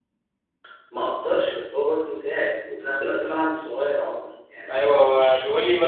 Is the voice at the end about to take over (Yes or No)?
Yes